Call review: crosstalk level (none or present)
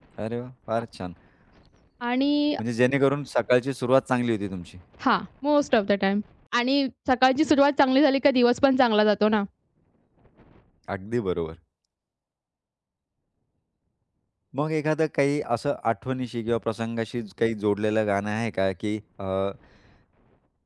none